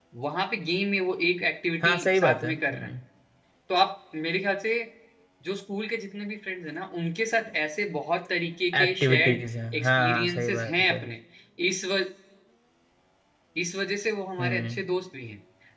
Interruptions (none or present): present